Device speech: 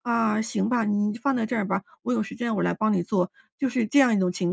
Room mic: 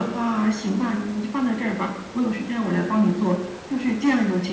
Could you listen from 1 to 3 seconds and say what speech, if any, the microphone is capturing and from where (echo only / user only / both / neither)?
echo only